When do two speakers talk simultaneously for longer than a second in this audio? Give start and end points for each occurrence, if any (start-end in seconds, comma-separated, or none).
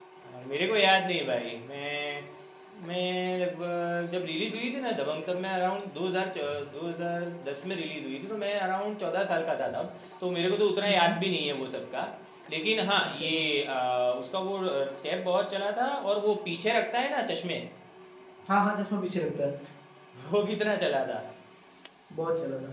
none